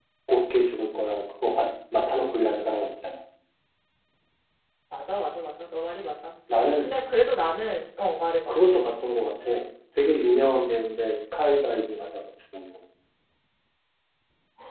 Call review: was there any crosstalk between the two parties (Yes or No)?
No